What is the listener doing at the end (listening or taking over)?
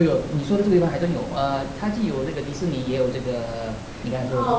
taking over